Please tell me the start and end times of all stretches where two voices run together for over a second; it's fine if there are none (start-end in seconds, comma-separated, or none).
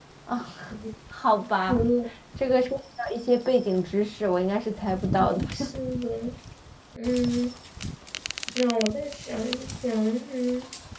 none